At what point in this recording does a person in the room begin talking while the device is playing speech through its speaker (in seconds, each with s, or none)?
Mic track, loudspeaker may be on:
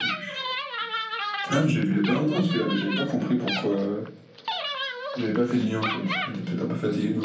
none